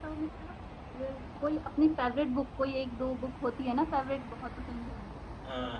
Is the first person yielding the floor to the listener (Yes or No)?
Yes